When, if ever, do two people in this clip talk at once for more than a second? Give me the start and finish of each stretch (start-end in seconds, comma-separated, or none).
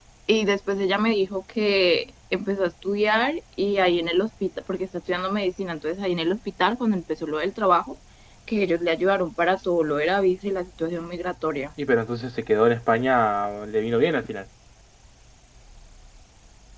none